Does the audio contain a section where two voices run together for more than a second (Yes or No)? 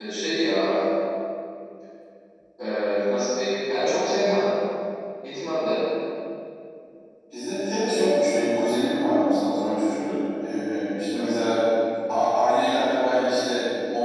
No